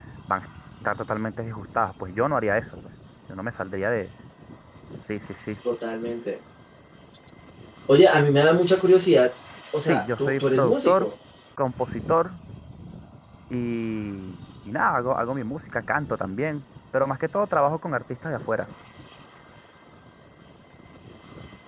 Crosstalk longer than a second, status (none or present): present